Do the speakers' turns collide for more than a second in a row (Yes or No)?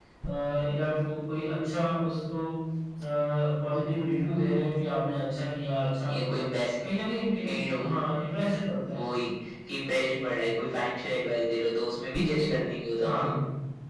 No